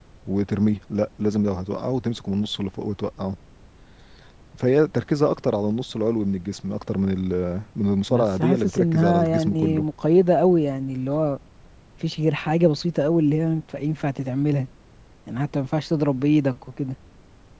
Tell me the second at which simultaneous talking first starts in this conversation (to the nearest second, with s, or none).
8 s